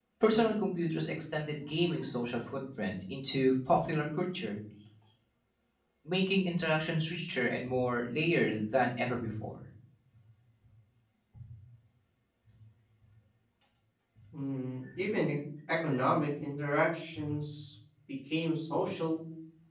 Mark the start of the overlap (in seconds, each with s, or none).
none